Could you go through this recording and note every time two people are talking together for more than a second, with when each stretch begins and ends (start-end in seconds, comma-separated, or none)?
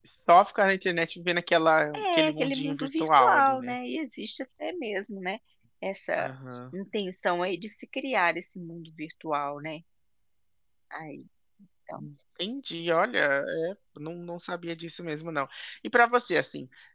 2.0-3.7